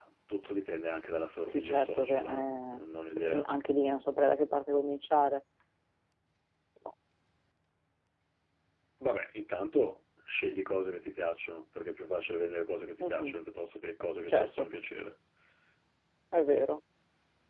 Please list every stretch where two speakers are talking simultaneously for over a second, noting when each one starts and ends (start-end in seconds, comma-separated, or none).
1.5-2.8